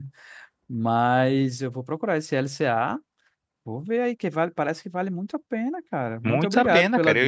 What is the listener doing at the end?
taking over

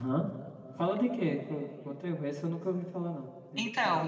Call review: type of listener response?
taking over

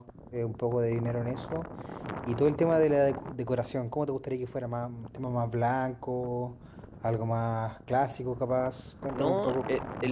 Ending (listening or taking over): taking over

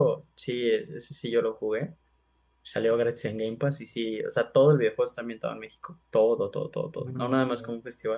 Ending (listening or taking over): listening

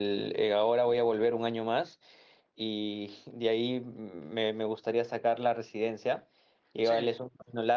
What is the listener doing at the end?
listening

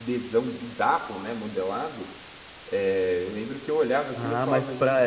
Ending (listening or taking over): taking over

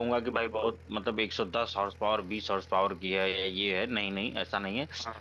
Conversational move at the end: listening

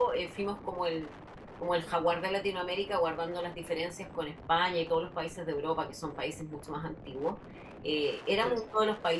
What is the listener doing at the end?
listening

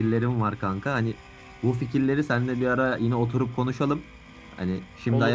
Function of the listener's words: listening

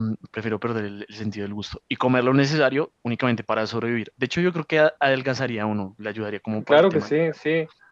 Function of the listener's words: taking over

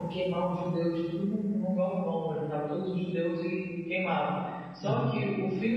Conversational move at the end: listening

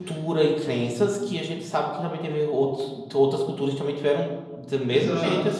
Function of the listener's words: taking over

